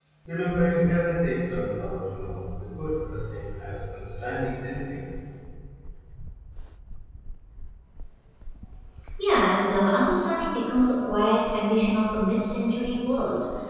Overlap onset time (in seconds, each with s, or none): none